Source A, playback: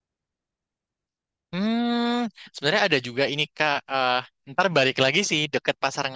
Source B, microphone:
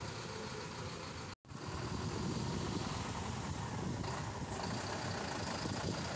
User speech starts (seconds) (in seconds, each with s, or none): none